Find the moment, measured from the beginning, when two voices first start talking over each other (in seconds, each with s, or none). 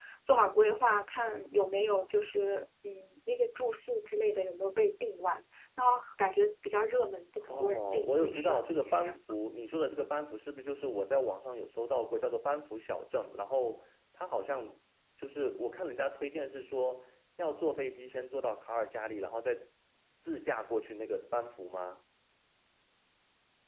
7.5 s